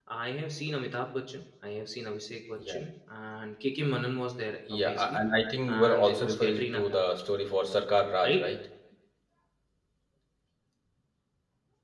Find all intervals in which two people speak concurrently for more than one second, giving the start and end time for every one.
5.8-7.0

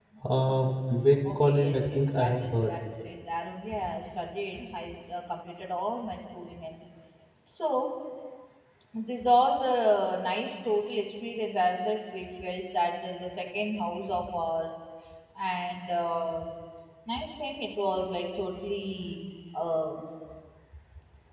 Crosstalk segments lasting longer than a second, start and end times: 1.5-2.8

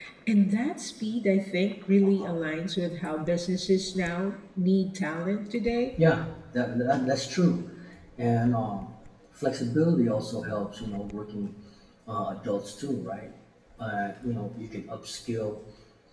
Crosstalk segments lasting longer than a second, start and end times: none

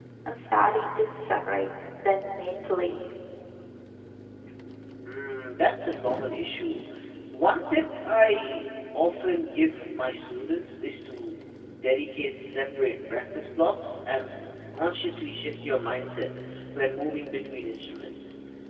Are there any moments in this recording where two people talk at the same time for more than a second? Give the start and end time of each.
none

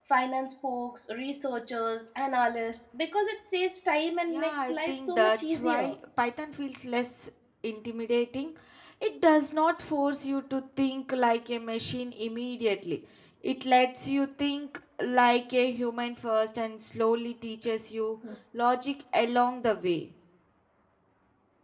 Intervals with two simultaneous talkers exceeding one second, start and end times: 4.3-5.9

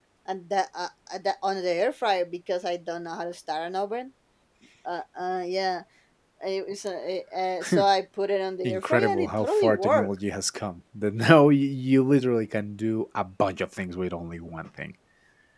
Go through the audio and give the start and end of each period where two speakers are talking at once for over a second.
8.6-10.1

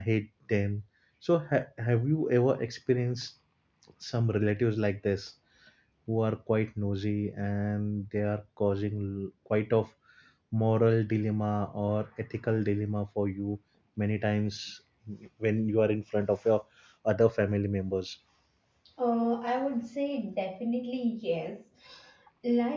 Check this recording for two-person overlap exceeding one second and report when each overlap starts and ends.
none

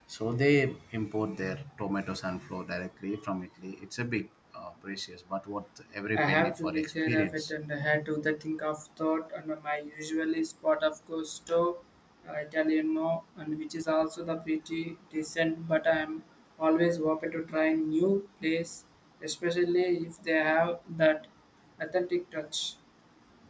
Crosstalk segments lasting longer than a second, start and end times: 6.2-7.5

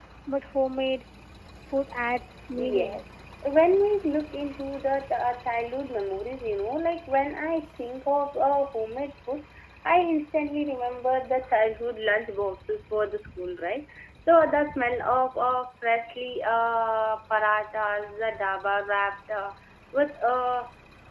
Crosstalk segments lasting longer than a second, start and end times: none

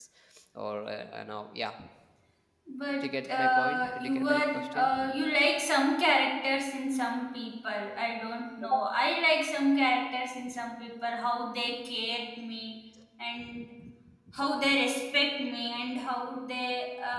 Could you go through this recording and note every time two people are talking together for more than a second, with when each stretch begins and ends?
3.0-5.1

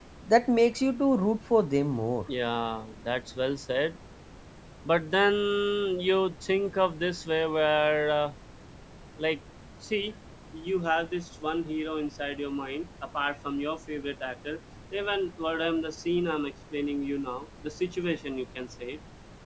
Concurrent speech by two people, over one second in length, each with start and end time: none

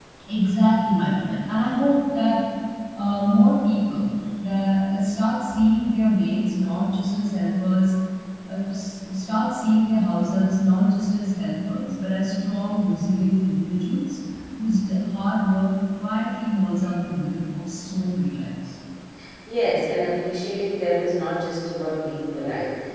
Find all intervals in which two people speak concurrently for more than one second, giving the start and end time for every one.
none

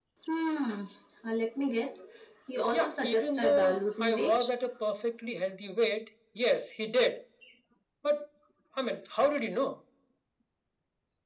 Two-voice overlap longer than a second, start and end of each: 2.7-4.5

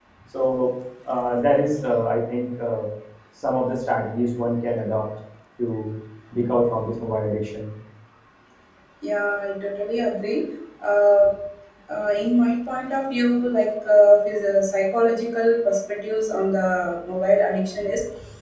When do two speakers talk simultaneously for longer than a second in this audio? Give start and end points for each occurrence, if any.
none

